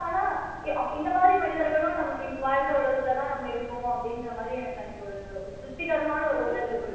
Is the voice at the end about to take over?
Yes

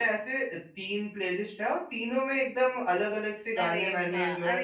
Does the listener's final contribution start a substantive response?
Yes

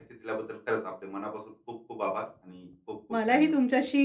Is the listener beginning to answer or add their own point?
Yes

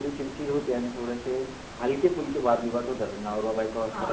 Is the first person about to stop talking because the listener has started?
Yes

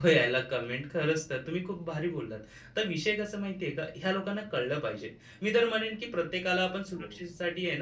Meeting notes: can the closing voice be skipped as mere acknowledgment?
Yes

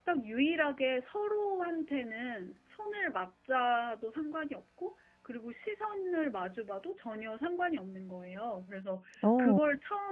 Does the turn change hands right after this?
No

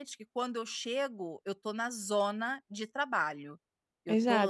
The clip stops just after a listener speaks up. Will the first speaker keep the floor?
No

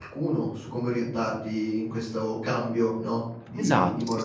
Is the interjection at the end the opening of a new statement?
Yes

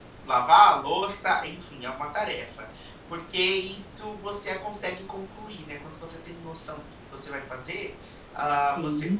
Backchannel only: Yes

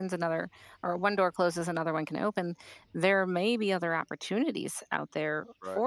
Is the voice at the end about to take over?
No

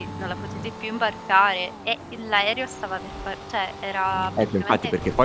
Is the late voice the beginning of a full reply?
Yes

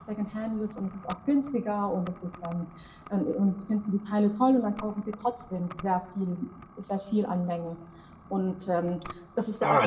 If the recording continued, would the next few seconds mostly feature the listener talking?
Yes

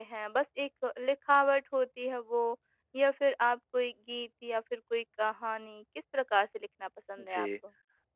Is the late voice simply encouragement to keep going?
No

